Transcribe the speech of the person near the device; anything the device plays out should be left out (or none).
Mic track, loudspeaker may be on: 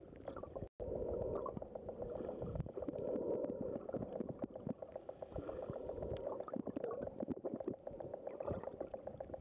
none